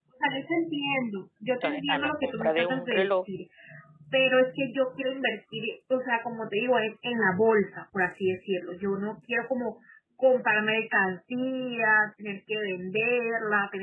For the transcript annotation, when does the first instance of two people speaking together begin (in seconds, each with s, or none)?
1.6 s